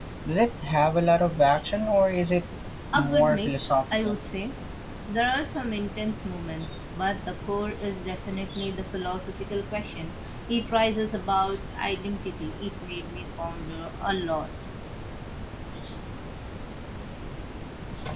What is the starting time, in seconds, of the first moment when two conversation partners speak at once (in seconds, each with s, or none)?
2.9 s